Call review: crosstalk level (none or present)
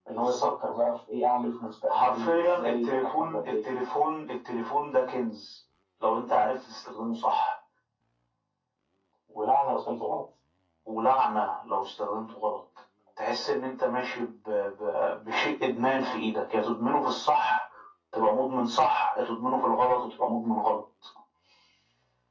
present